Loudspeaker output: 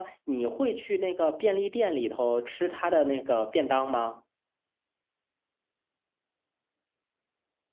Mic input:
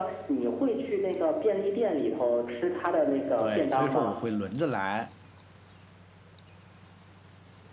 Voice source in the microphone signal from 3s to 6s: both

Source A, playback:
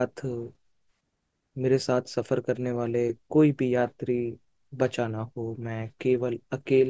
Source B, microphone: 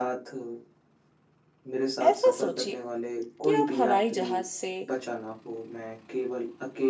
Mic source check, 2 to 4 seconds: both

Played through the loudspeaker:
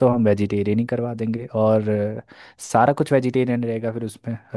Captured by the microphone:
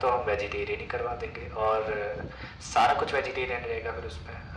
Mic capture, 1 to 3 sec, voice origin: echo only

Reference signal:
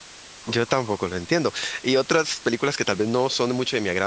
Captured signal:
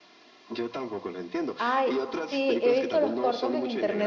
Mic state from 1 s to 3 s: both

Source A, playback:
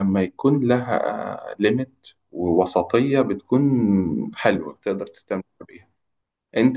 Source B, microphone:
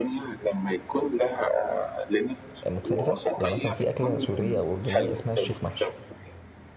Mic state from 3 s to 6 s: both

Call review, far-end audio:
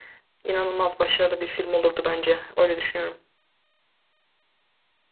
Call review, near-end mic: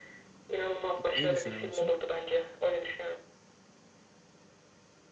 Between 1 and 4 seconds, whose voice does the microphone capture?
both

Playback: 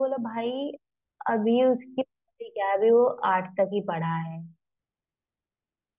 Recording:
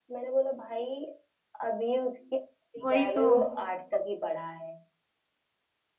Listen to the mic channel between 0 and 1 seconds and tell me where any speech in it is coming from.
echo only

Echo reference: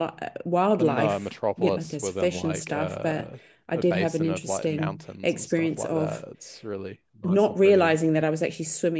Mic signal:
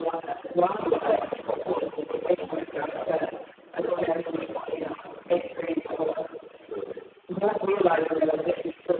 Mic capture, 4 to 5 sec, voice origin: echo only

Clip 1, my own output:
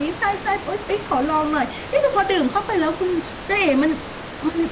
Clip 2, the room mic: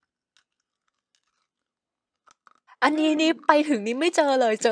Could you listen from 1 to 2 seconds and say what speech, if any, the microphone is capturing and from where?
neither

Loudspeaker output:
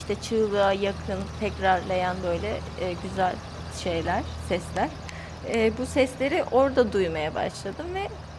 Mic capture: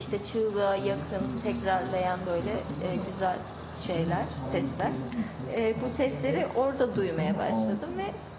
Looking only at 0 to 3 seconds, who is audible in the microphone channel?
both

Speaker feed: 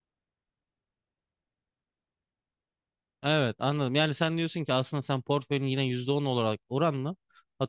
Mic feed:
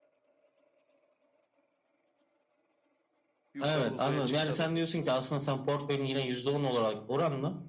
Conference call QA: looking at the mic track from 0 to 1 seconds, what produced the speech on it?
neither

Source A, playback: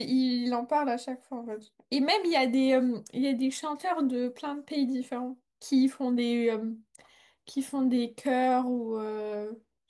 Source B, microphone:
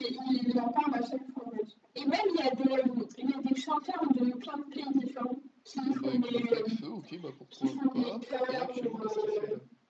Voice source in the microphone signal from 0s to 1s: echo only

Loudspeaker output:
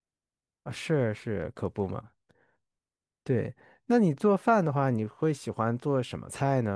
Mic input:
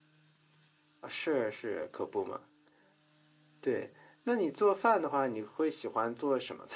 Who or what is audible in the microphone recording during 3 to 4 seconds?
echo only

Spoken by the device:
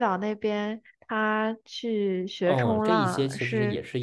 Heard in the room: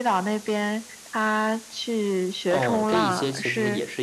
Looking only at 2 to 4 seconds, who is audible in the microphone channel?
echo only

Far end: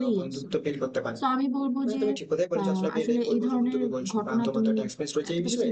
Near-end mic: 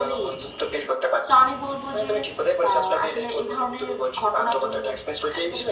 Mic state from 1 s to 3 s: echo only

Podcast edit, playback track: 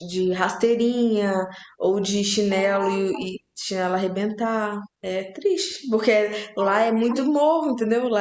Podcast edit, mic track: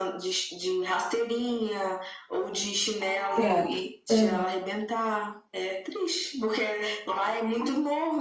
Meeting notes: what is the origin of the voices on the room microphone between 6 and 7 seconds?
echo only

